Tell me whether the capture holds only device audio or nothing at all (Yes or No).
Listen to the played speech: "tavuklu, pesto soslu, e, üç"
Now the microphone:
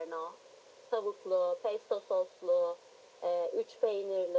Yes